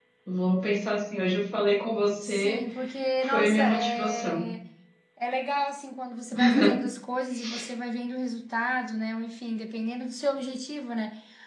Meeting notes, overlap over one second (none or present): present